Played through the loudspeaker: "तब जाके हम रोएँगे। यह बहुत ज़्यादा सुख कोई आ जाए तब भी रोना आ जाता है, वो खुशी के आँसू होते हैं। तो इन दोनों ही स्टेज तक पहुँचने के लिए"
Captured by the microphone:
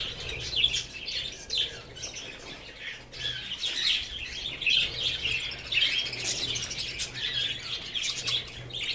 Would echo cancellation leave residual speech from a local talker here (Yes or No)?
No